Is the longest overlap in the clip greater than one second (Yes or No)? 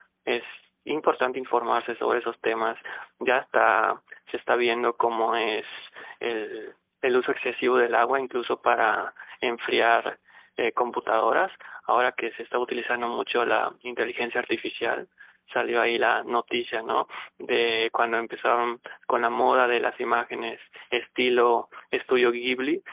No